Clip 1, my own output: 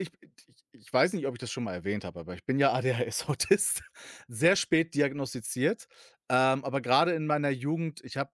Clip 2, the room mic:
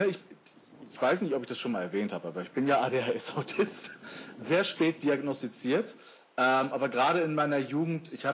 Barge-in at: none

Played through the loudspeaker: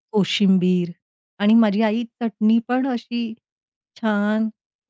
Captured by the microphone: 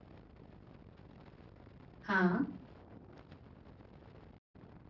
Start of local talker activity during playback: 2.1 s

